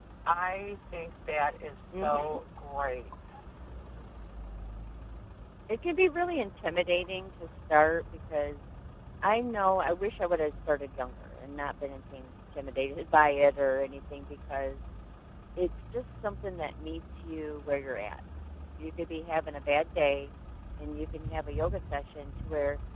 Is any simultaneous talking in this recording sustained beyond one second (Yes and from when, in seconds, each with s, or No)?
No